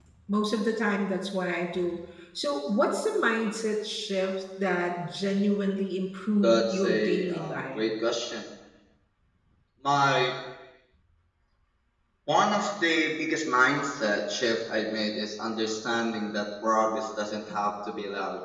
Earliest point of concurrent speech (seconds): 6.4 s

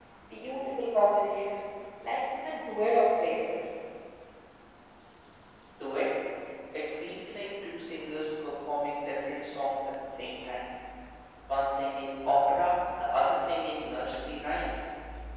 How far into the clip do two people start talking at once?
none

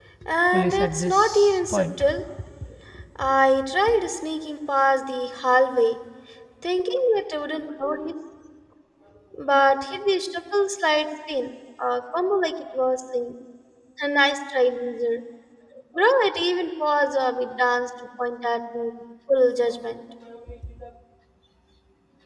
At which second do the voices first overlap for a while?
0.5 s

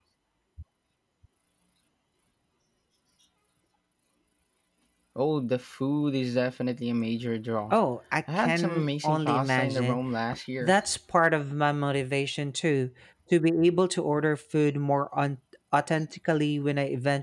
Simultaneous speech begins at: 8.4 s

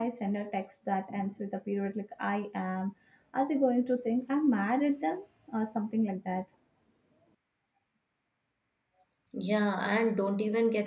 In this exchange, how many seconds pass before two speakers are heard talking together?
none

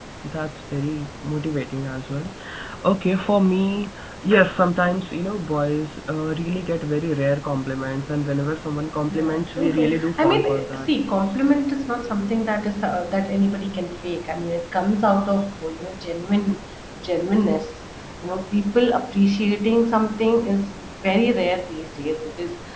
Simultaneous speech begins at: 9.1 s

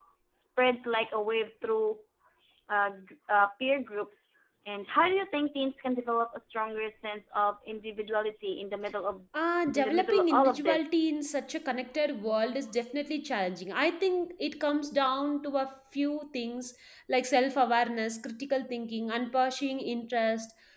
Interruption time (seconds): 9.8 s

